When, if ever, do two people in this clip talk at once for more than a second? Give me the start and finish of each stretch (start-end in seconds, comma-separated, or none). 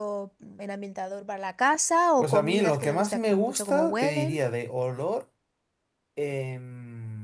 2.2-4.4